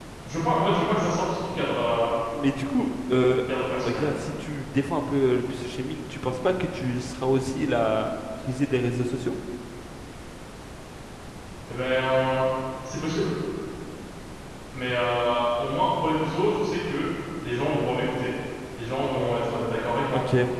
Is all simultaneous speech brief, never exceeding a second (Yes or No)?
Yes